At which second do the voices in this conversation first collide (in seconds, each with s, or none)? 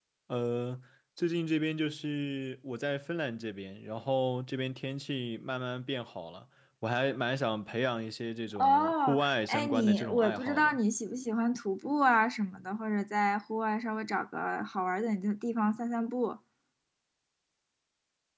8.6 s